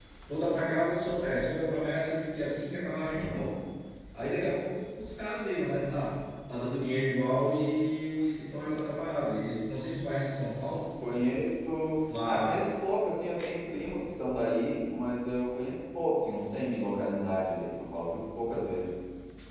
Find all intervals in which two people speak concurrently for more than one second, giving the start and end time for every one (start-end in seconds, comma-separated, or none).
none